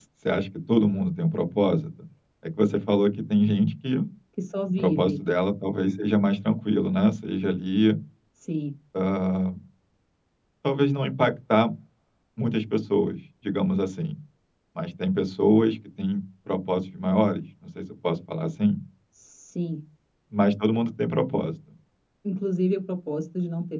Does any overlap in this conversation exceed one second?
No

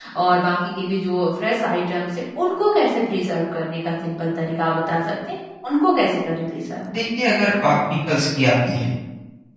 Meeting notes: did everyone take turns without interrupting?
Yes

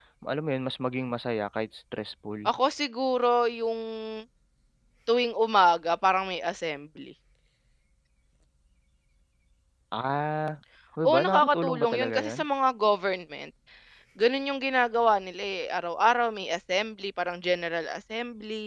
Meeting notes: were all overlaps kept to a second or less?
No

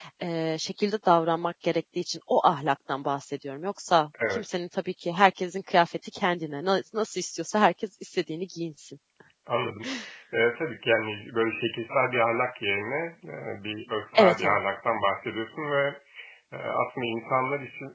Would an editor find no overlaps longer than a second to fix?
Yes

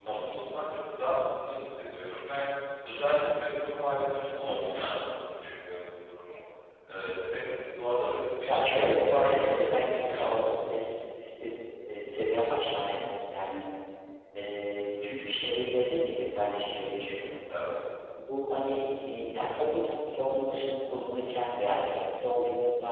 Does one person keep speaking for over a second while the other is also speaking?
Yes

